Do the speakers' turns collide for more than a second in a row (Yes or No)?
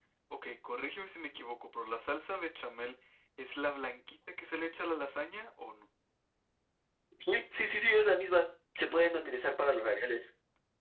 No